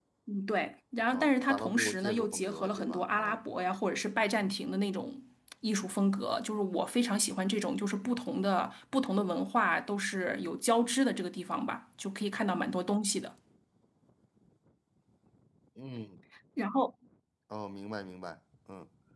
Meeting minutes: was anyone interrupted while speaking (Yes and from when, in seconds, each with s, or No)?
Yes, from 1.1 s